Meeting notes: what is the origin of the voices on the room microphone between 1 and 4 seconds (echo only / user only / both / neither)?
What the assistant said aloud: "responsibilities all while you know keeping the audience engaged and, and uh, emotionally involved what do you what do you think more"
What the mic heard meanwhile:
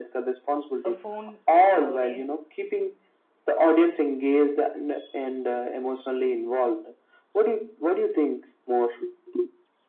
both